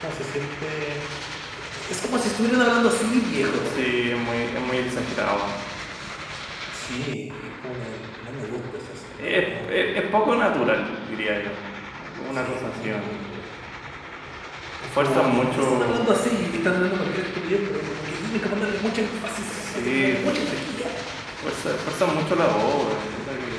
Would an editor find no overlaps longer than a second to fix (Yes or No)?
No